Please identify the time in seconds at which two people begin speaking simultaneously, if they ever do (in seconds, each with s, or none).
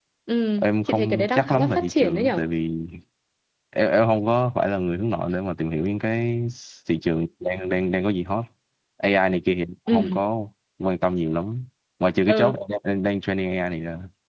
0.6 s